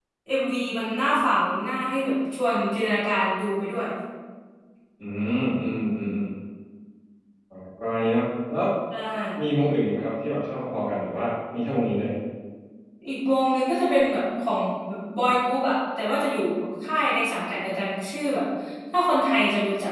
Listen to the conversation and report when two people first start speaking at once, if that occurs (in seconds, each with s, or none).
none